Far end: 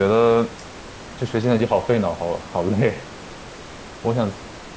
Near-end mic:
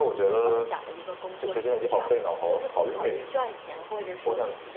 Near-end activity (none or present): present